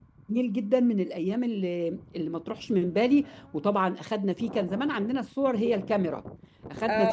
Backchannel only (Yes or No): No